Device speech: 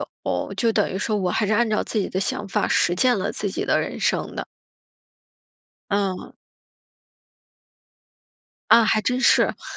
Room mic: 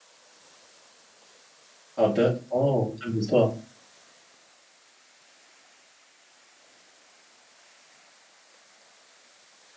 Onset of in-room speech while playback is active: 2.0 s

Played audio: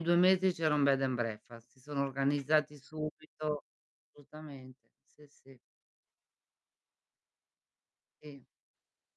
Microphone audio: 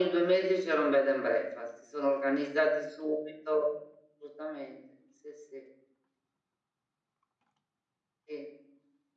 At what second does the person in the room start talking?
none

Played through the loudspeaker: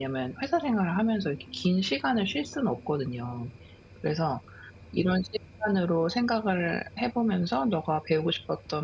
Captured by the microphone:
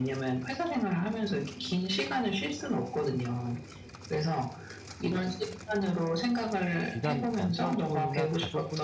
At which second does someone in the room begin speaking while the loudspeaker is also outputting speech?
6.9 s

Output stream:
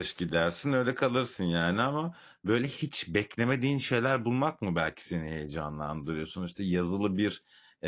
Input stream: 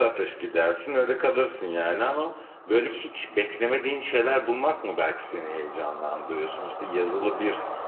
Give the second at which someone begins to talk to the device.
none

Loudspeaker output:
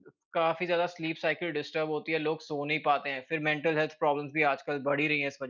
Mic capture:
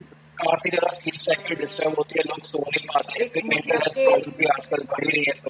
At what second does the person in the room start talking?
3.2 s

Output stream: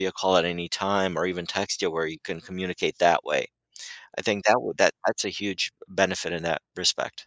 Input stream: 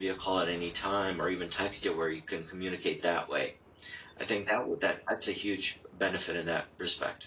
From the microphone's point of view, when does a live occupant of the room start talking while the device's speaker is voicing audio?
none

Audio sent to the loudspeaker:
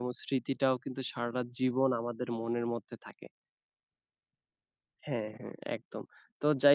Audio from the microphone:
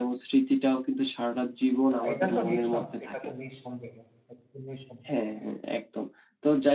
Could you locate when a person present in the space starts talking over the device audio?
1.9 s

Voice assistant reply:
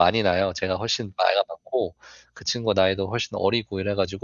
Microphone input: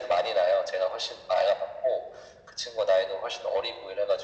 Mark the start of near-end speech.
none

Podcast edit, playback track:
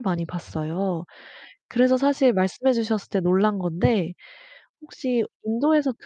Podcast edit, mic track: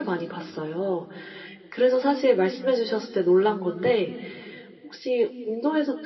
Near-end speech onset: none

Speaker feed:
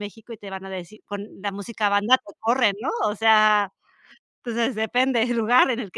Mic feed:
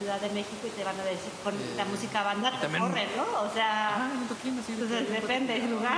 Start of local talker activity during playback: 1.5 s

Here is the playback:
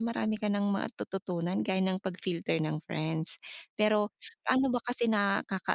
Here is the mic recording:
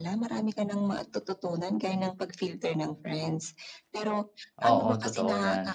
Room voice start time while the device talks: 4.6 s

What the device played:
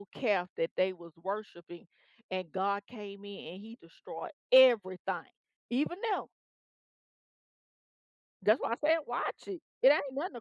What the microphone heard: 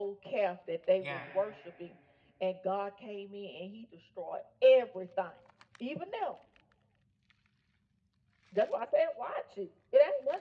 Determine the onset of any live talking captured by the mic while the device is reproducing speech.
1.0 s

